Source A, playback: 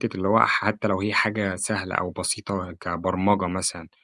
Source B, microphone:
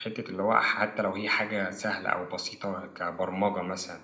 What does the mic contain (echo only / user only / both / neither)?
echo only